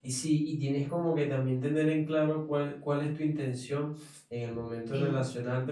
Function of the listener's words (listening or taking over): listening